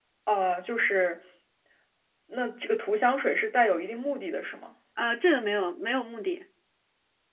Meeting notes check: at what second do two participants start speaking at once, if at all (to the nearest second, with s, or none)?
none